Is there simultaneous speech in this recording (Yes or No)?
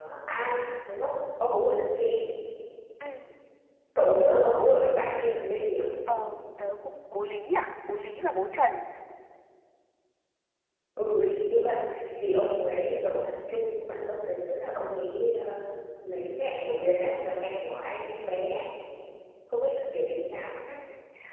No